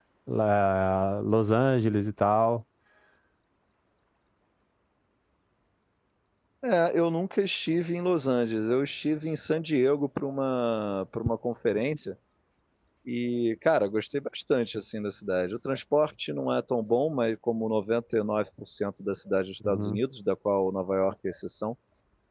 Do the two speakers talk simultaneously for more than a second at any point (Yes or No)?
No